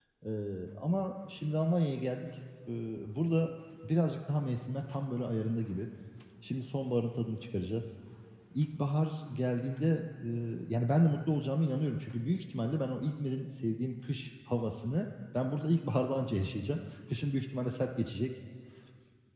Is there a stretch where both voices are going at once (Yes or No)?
No